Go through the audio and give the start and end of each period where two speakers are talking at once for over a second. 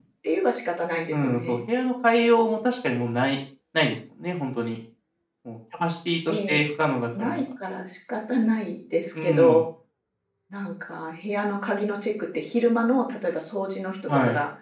none

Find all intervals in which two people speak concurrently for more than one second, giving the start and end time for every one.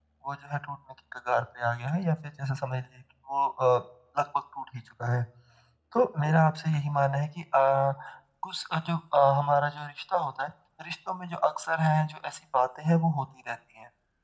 none

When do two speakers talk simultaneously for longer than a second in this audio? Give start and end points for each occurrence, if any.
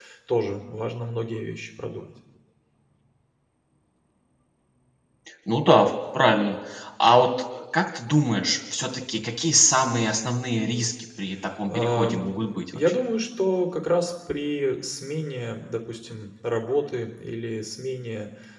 11.7-12.9

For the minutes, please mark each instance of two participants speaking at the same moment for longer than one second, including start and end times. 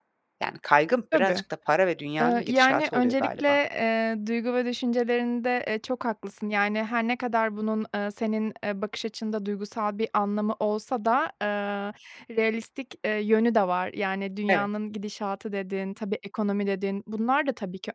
2.2-3.4

